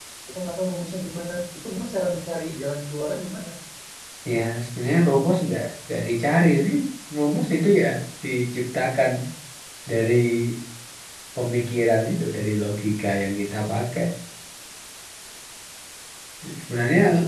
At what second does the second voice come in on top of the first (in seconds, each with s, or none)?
none